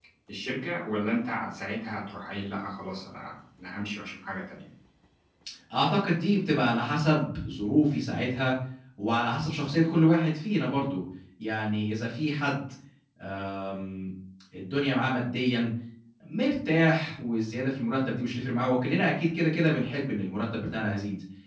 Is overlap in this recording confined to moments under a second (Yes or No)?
Yes